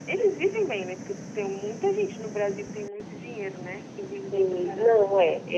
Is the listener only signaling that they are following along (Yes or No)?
No